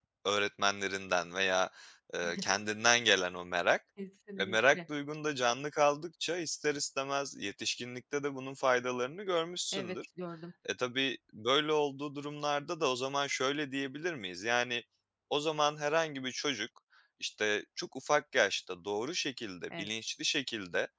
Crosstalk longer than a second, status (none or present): none